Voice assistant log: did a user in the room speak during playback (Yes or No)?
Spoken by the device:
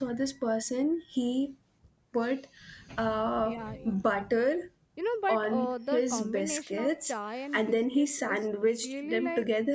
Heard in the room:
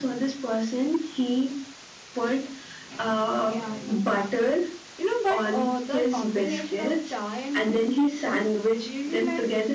No